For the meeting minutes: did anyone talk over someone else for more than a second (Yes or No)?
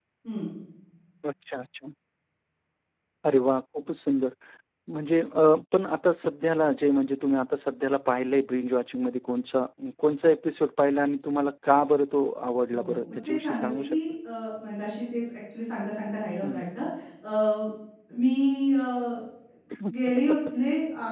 Yes